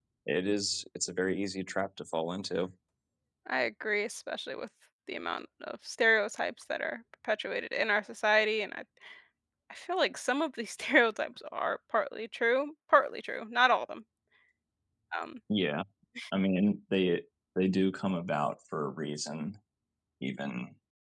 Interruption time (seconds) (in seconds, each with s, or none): none